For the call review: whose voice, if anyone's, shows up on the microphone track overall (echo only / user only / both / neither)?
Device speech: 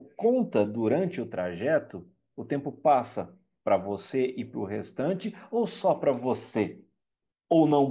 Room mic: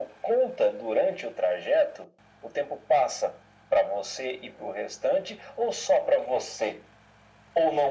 echo only